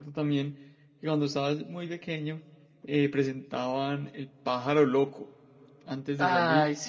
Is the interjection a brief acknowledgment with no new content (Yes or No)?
Yes